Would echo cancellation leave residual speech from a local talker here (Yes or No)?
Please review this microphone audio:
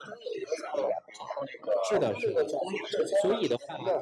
Yes